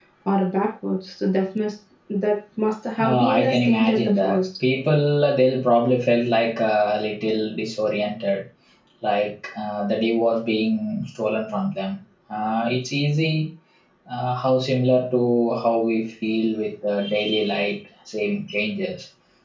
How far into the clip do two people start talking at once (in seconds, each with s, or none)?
3.0 s